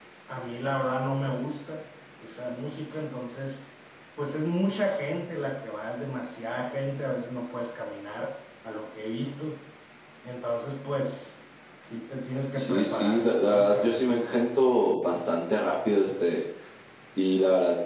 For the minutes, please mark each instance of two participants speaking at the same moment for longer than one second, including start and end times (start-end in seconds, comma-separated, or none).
12.6-14.4